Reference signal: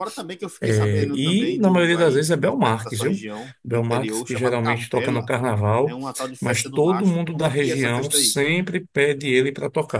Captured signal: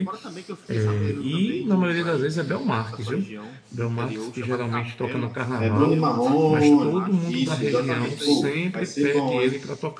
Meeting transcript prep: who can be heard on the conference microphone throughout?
both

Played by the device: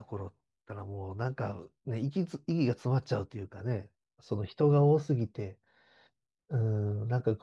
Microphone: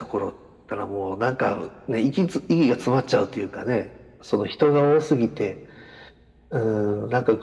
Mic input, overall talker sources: echo only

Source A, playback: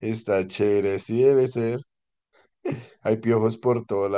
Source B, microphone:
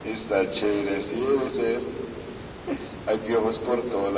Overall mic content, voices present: echo only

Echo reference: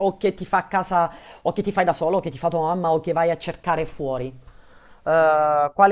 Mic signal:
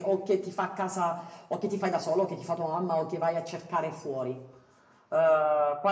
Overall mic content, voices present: echo only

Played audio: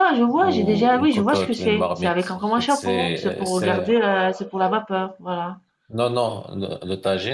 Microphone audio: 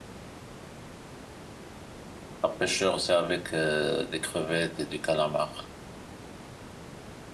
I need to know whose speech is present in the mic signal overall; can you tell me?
user only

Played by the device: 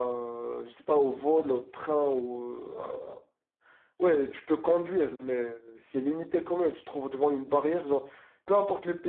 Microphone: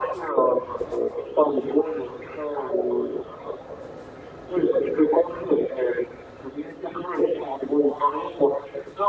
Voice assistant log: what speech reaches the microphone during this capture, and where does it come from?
echo only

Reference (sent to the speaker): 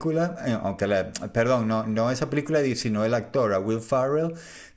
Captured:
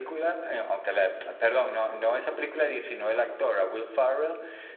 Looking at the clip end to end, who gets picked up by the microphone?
echo only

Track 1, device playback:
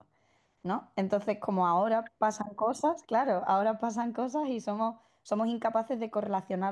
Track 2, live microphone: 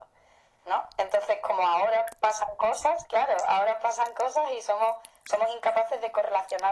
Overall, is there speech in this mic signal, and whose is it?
echo only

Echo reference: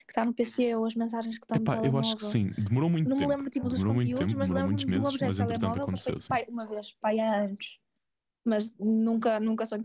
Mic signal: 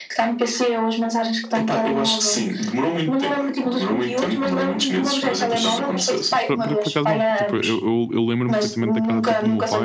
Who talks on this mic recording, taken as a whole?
both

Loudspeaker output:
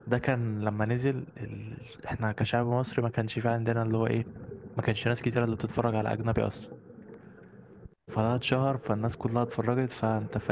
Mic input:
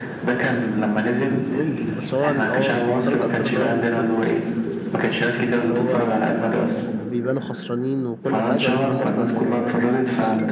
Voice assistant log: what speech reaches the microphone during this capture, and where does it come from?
both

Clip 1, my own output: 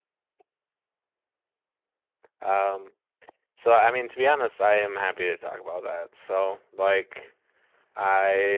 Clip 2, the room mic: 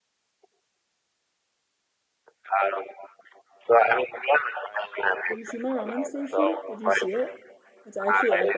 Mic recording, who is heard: both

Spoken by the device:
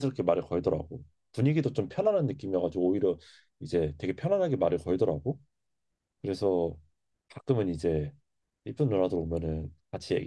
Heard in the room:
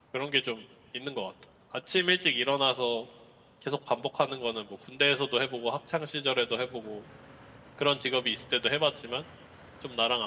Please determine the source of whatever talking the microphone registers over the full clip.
user only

